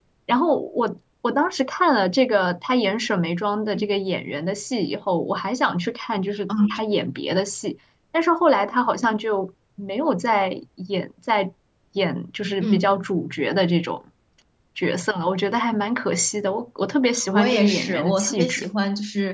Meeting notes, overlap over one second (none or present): present